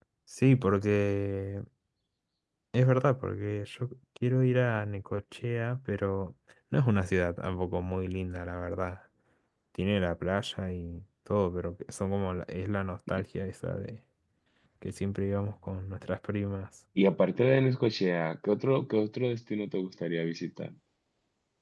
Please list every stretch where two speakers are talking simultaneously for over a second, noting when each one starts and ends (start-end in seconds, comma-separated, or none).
none